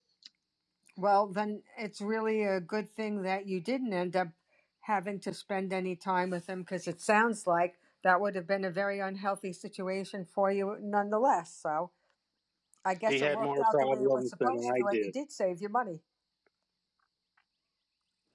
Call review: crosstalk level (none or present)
present